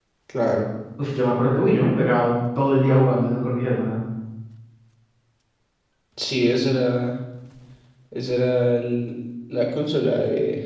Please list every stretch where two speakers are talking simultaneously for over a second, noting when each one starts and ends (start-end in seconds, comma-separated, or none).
none